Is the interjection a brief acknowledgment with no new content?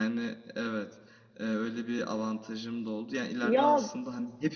Yes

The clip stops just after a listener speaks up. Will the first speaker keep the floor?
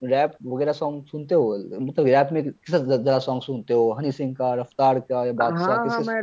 No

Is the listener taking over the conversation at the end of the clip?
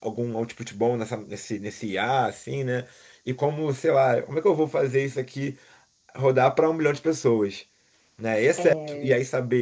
No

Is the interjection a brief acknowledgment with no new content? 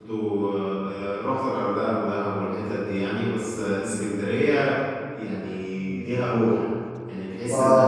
Yes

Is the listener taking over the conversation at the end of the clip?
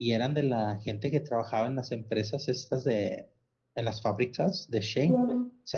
No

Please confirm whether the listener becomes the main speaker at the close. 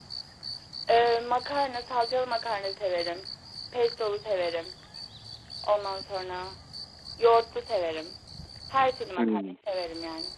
No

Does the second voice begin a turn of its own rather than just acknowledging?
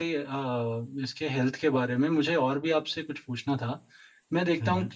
No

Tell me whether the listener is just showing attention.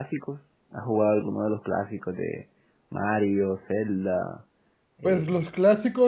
No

